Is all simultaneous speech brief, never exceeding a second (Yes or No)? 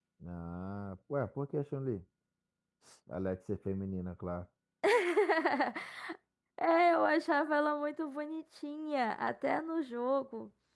Yes